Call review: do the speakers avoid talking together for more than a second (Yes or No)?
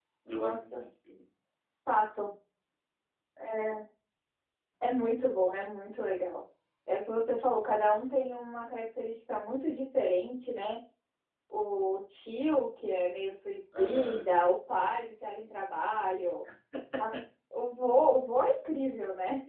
Yes